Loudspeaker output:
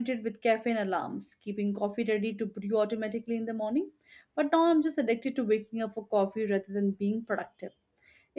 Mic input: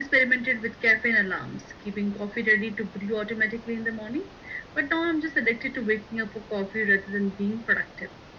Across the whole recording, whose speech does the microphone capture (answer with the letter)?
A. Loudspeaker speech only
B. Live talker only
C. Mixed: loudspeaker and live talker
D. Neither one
A